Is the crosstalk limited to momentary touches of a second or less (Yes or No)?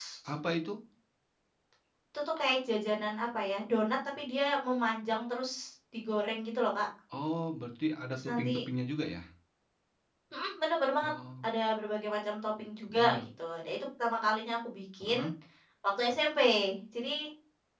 Yes